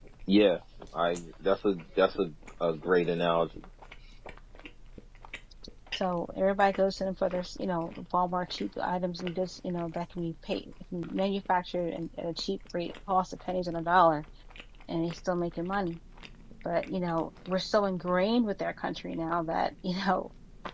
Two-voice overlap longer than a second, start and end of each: none

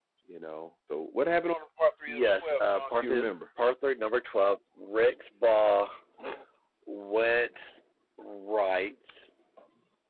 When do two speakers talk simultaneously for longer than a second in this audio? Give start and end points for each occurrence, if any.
2.1-3.3

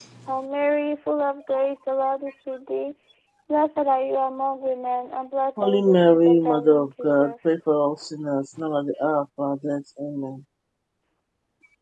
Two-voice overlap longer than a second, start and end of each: 5.6-7.3

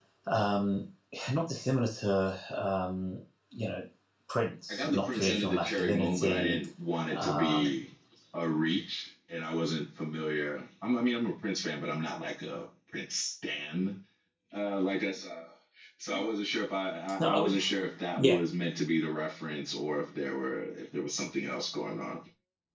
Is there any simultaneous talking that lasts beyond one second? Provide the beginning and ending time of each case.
4.7-6.6

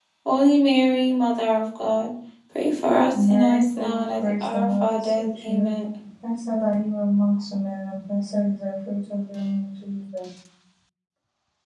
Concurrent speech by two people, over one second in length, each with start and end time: 3.1-5.7

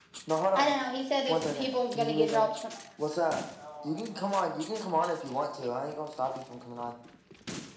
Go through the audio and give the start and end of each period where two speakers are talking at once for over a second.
1.3-2.5

